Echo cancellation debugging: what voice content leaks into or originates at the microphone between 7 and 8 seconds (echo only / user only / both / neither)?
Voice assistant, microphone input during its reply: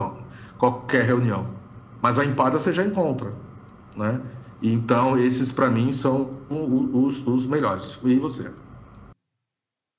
echo only